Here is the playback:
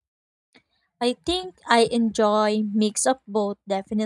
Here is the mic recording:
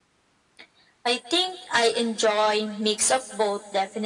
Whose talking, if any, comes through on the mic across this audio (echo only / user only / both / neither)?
echo only